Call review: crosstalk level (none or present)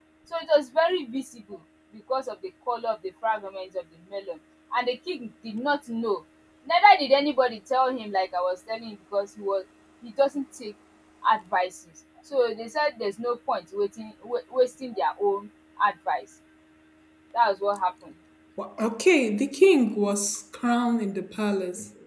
none